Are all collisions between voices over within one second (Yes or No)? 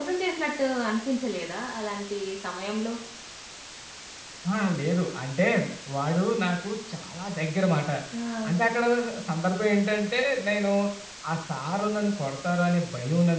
Yes